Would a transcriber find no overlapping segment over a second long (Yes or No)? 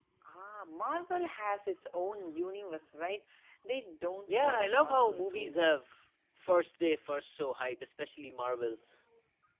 No